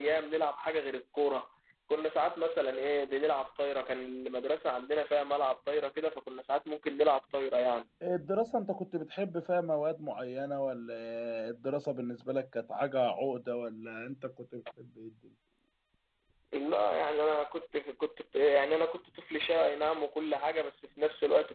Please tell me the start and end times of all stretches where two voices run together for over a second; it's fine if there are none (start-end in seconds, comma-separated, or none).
none